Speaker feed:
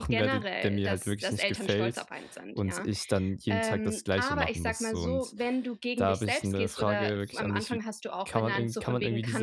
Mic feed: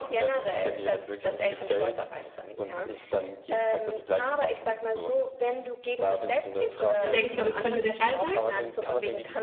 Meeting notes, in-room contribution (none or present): present